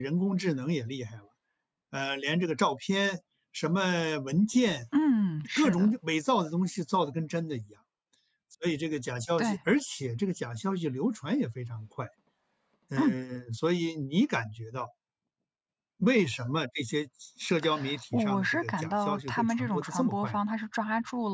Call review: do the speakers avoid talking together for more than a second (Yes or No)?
No